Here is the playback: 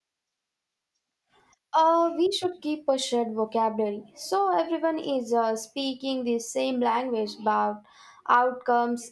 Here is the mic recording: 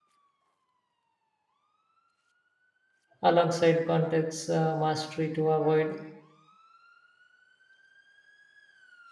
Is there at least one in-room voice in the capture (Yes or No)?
Yes